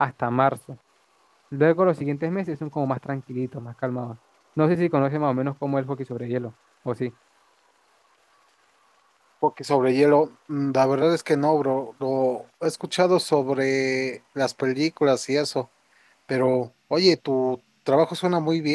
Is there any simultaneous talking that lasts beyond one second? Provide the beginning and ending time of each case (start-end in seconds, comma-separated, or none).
none